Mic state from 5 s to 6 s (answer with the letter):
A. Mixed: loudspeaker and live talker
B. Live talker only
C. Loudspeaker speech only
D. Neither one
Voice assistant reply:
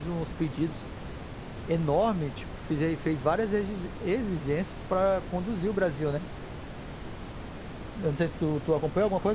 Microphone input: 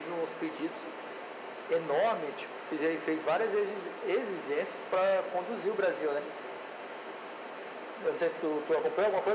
C